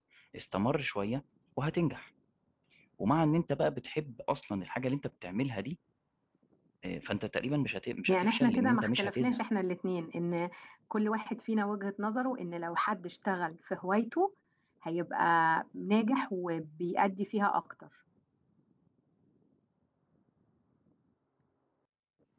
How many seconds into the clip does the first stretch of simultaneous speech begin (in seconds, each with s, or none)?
8.1 s